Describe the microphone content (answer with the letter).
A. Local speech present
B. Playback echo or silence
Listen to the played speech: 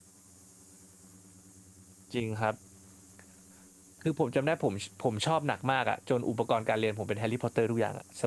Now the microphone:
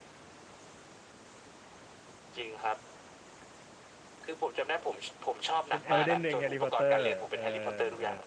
A